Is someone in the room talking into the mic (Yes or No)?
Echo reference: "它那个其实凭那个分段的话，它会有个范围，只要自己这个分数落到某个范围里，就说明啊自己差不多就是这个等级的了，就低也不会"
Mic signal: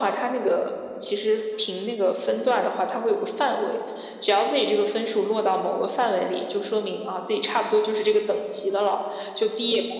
No